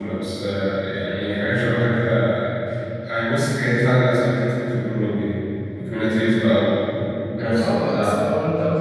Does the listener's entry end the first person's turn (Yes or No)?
Yes